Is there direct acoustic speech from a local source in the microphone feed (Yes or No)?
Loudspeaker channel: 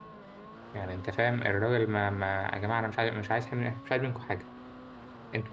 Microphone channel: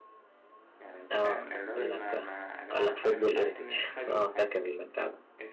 Yes